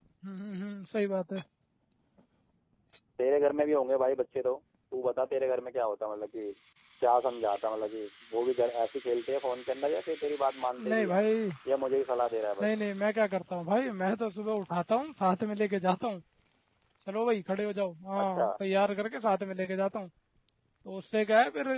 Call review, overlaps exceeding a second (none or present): none